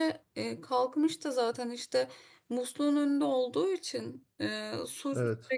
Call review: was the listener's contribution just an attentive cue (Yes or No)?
Yes